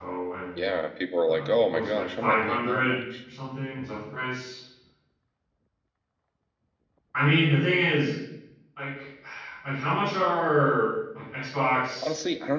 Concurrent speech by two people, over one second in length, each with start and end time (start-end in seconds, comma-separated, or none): 1.3-3.0